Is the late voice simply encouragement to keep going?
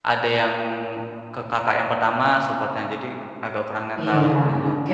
No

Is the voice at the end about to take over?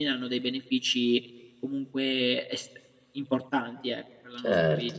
Yes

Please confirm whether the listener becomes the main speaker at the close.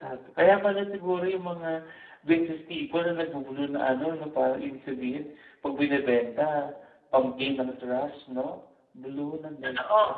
Yes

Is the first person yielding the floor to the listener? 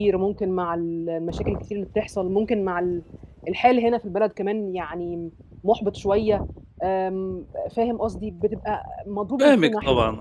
Yes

